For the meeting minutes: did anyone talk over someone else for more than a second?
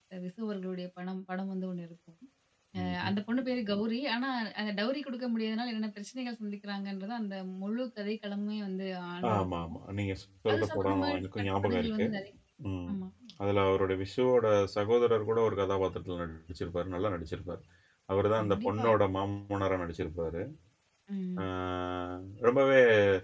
Yes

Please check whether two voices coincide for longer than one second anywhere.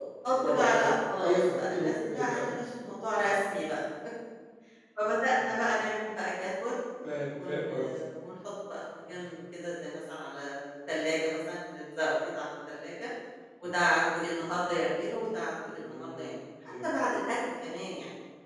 Yes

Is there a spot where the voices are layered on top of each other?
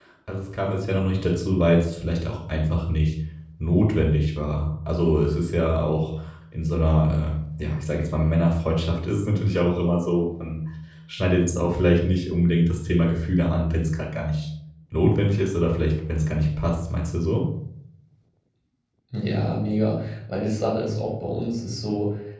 No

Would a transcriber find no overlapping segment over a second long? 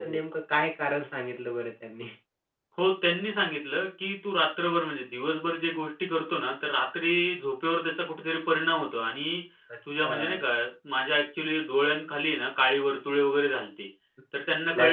Yes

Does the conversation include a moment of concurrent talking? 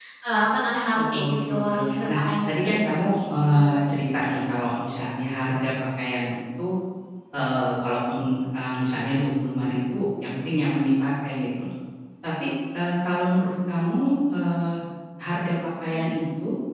Yes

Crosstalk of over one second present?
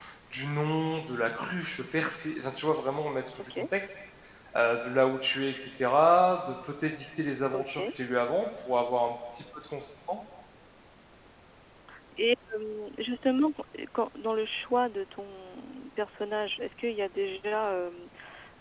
No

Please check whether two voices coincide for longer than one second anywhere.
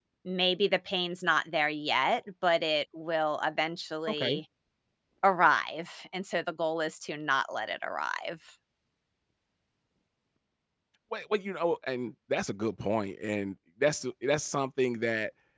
No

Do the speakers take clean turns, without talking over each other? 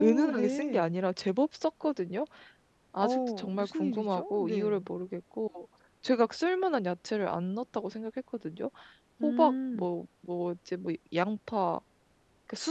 No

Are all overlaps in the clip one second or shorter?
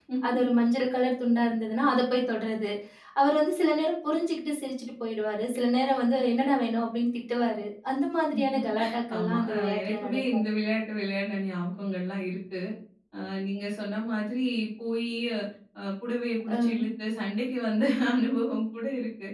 No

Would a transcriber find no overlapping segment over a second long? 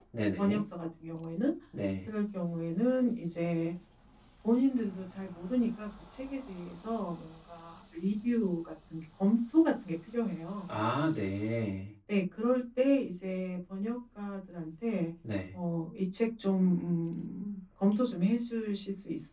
Yes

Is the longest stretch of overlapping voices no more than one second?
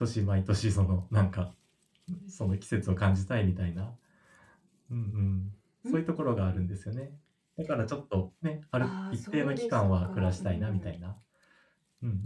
No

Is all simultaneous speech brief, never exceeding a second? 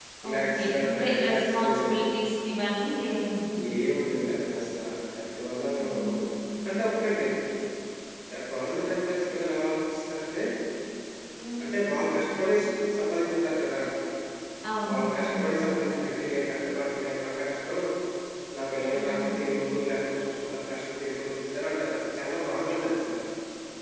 No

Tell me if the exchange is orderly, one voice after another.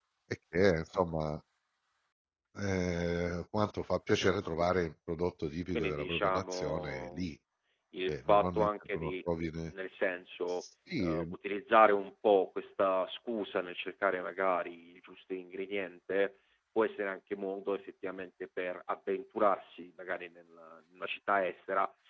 No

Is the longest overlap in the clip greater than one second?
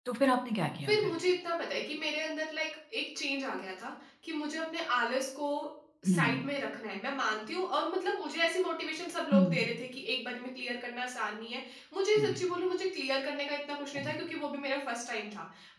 No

